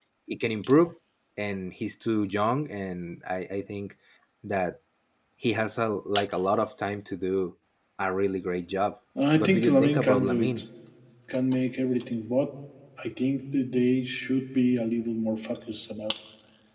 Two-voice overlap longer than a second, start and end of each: 9.3-10.6

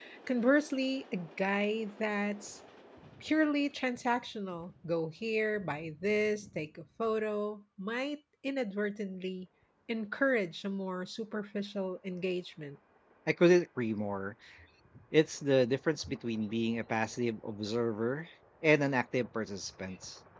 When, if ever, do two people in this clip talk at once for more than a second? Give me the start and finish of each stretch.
none

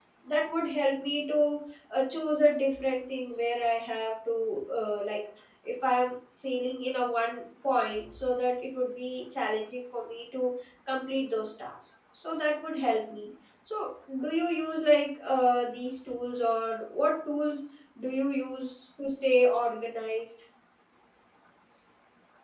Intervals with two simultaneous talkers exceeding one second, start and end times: none

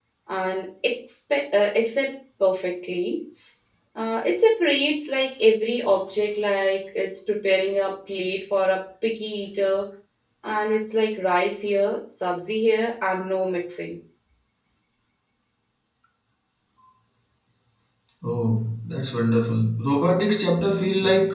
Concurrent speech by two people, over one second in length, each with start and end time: none

